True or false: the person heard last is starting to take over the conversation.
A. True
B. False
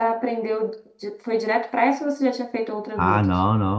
A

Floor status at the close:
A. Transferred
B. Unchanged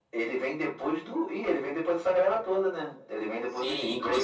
A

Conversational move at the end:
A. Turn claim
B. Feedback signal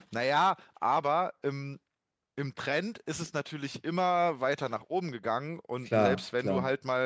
B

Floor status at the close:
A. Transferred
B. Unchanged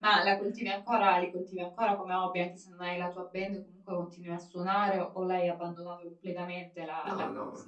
A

